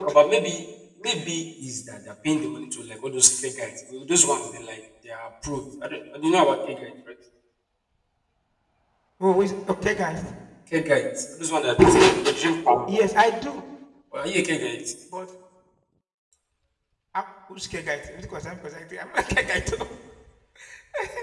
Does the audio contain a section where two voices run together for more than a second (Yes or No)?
No